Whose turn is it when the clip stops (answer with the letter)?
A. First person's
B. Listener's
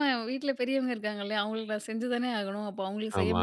A